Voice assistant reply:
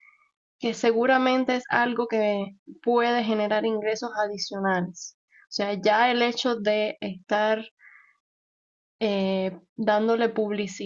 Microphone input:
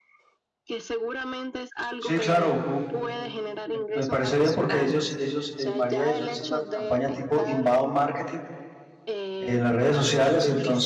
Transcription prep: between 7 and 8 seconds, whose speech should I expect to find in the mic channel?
both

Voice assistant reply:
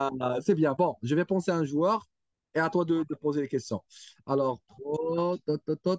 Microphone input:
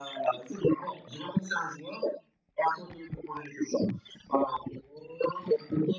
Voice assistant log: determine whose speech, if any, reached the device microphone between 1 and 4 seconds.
echo only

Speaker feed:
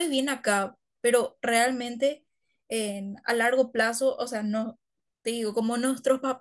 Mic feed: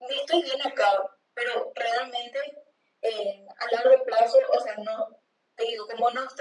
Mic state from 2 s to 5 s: echo only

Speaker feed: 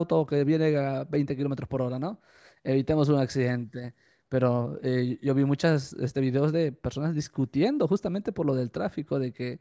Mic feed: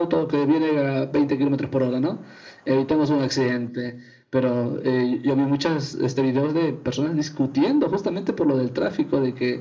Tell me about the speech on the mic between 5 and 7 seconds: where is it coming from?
echo only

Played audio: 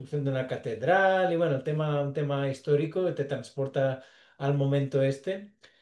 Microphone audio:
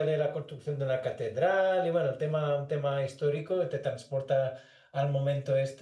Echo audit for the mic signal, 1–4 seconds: echo only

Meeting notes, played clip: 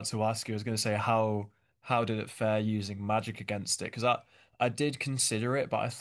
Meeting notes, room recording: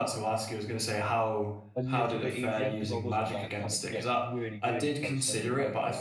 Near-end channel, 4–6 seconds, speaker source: both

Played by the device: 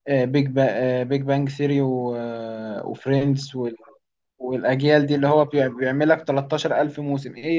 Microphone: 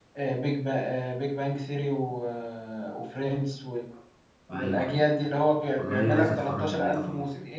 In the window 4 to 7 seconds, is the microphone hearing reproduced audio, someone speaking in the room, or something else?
both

